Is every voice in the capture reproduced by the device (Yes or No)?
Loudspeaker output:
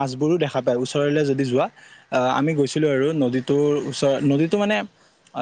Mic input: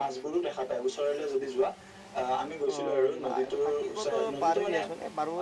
No